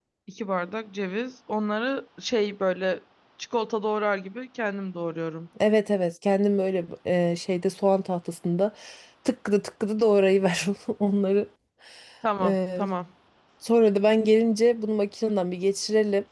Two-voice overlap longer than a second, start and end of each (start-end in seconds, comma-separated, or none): none